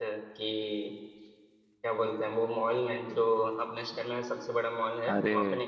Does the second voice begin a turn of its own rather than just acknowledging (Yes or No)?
Yes